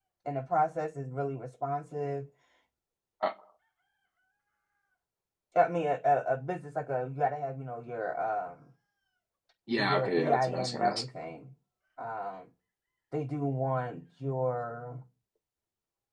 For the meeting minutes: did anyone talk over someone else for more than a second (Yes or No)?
Yes